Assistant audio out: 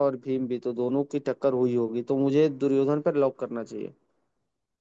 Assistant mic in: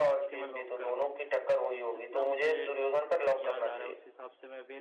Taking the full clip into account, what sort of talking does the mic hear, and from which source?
both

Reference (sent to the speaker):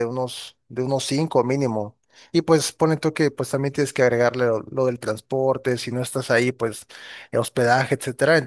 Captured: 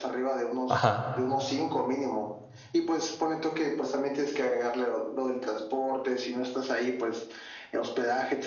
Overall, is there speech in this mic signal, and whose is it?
both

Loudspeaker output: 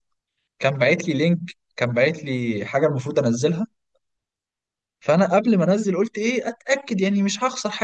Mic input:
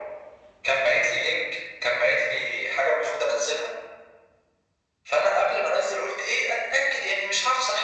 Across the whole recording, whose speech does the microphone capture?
echo only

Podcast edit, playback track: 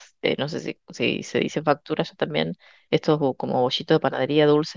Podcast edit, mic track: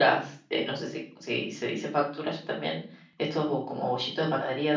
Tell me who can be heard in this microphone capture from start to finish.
echo only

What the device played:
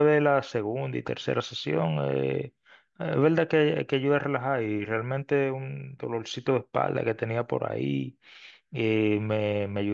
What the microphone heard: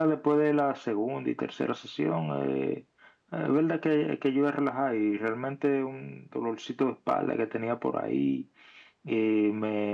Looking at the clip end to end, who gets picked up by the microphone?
echo only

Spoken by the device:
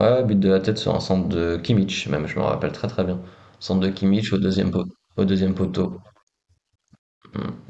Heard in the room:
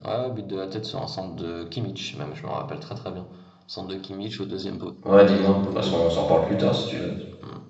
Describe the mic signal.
both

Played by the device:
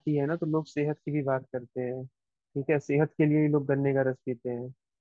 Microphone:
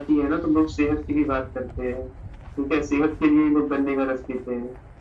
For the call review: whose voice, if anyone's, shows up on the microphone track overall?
echo only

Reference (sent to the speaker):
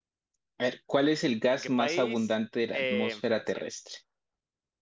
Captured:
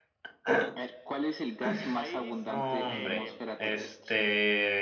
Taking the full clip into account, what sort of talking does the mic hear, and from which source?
both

